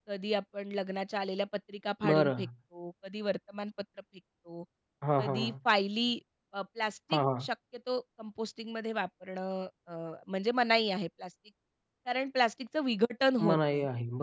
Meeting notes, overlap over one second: none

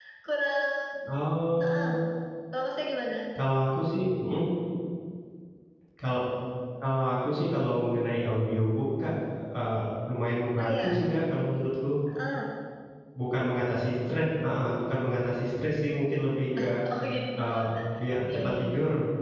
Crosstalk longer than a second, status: none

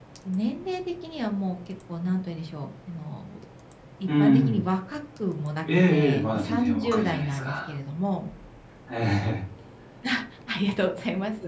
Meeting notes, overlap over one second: present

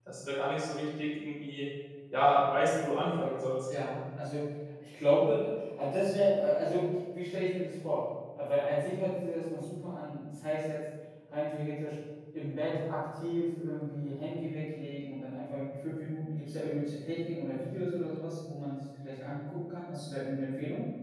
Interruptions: none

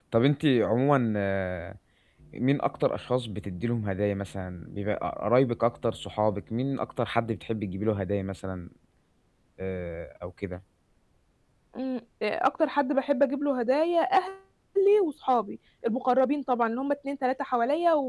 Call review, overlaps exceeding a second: none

